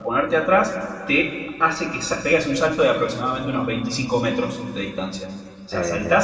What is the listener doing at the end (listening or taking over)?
listening